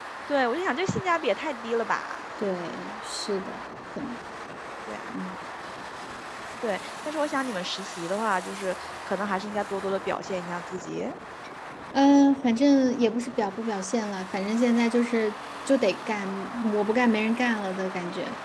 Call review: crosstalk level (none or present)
none